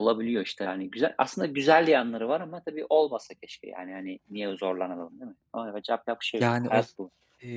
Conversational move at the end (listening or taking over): taking over